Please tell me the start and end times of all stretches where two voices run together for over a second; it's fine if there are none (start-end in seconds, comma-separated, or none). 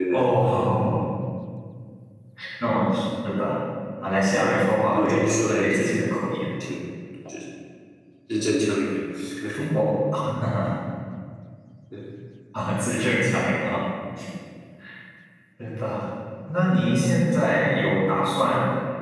4.4-6.2